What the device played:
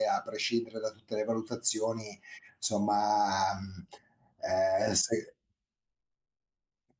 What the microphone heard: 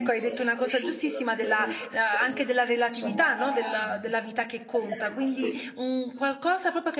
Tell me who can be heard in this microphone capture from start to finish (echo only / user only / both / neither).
both